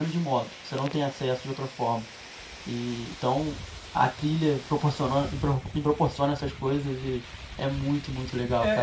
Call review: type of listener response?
taking over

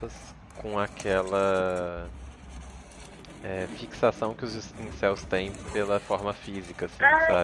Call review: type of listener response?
taking over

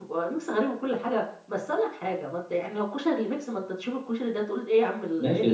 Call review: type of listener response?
taking over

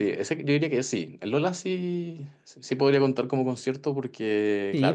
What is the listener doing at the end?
taking over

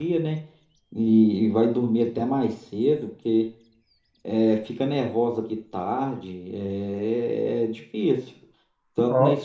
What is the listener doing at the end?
listening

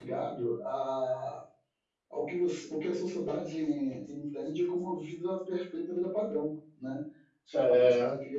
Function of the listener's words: listening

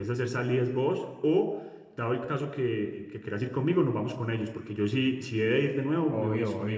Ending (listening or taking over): taking over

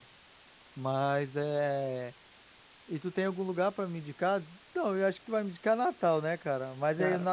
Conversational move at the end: listening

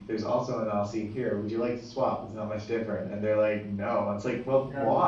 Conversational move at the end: listening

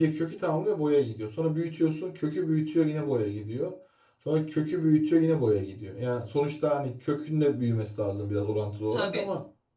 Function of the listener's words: listening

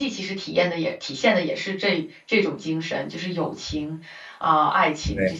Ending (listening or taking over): taking over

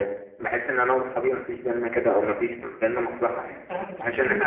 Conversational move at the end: taking over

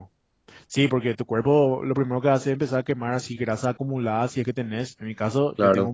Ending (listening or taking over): listening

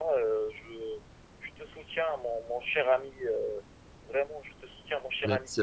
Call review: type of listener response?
taking over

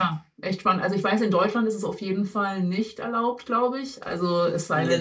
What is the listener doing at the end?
taking over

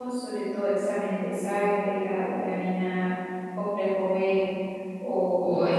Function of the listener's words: taking over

